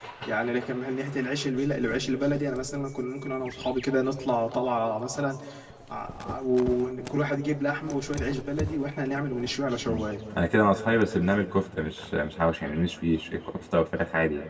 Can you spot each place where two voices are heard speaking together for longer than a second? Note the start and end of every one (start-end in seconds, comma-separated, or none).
none